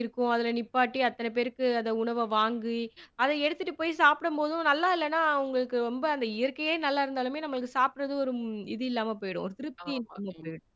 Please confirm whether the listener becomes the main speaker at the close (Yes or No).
Yes